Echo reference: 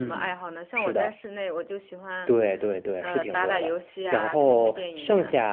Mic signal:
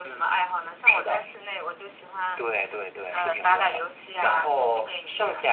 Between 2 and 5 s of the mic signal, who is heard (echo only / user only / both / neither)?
echo only